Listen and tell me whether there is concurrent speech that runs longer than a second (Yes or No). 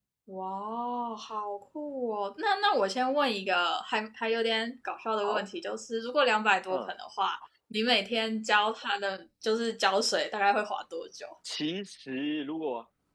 No